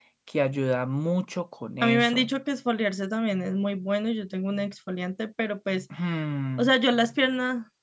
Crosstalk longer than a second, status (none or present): none